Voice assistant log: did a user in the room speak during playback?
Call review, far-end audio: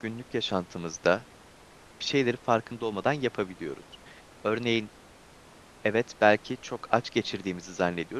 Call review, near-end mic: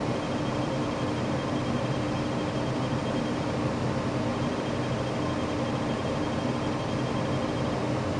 No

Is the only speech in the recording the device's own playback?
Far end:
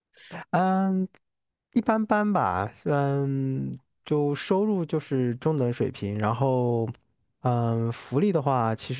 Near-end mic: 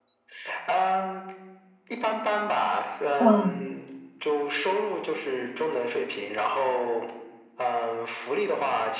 No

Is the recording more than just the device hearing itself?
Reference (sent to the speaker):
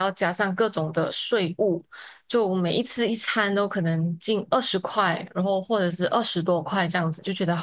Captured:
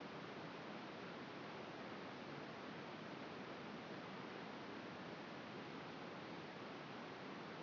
No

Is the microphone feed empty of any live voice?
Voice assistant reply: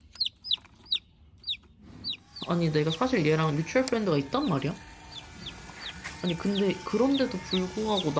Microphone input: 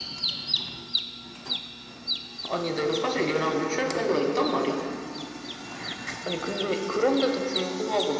Yes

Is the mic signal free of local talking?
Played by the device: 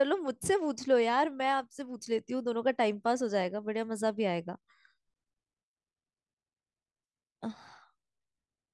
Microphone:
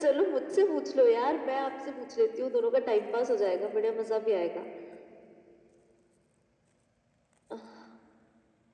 Yes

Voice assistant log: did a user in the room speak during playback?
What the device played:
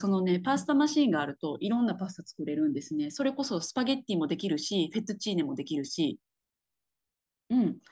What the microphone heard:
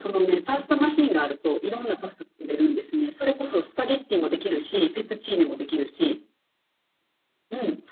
No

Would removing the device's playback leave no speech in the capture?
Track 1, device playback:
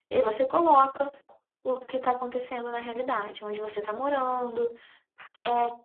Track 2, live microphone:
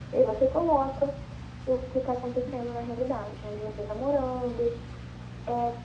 Yes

